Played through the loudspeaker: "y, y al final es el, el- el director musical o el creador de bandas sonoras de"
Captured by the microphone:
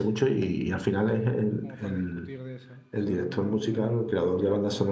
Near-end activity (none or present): present